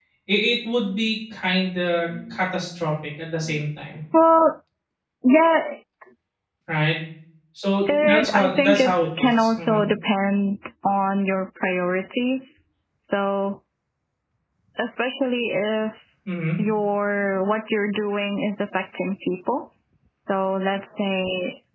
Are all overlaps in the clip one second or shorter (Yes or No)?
No